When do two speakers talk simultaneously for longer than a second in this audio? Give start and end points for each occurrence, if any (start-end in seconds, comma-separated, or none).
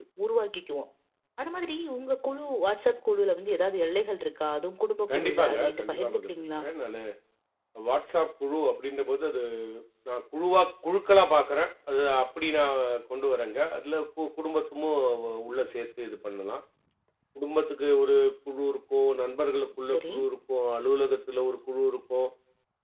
5.2-6.6